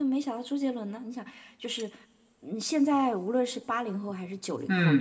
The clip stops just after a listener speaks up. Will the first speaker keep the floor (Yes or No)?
No